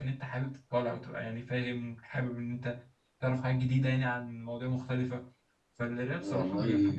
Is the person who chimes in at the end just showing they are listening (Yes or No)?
No